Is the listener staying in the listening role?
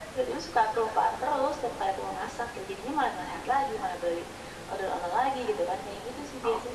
No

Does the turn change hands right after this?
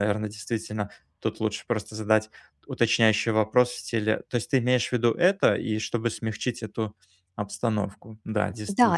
Yes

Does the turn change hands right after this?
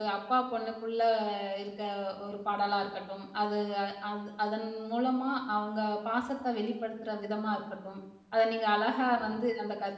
No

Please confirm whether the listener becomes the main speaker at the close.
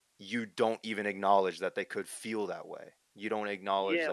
Yes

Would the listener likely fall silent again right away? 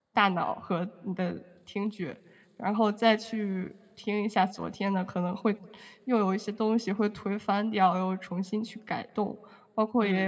No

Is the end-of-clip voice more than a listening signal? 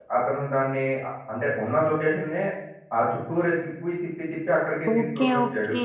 Yes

